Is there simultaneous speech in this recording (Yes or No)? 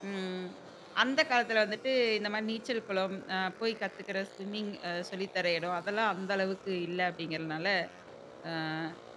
No